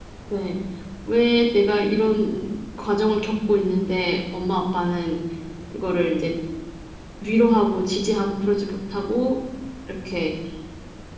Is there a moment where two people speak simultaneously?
No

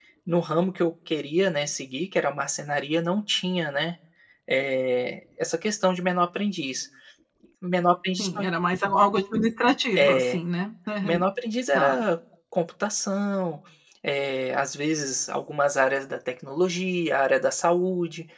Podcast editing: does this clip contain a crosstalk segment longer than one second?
No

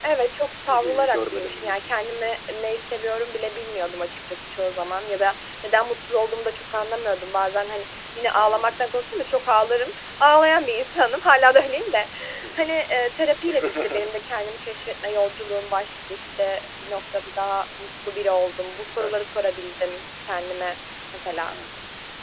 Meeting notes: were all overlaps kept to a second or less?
No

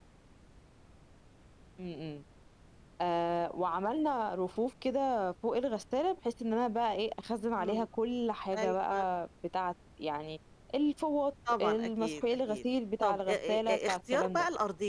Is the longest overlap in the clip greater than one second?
Yes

